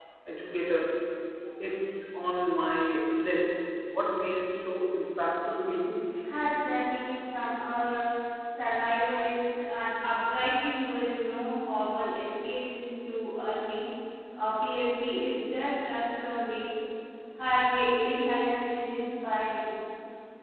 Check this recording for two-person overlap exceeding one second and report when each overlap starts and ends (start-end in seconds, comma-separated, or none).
none